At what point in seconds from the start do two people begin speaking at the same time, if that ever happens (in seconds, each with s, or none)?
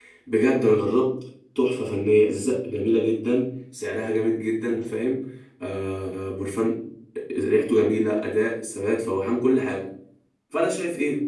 none